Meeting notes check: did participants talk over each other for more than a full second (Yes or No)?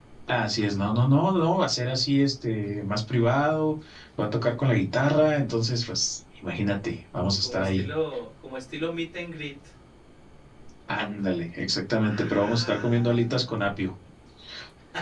Yes